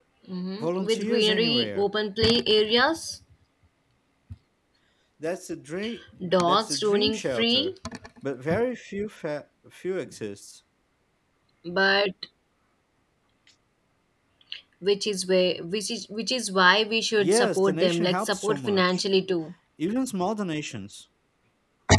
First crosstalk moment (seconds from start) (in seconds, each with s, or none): 0.6 s